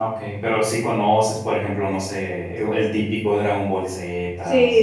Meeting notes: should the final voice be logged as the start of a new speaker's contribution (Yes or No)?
Yes